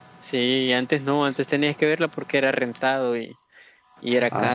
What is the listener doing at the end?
taking over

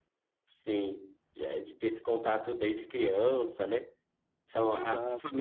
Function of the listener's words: listening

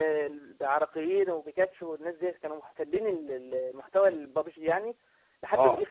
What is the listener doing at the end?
listening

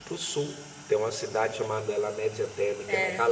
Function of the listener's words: listening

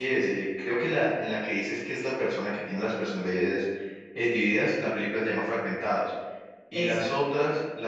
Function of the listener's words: listening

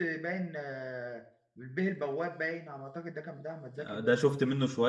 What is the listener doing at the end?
taking over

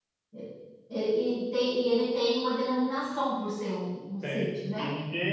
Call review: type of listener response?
taking over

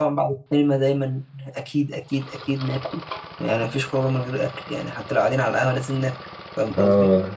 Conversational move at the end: taking over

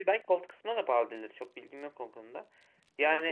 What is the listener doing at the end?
taking over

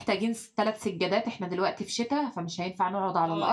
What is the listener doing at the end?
taking over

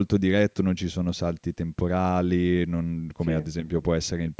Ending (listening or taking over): listening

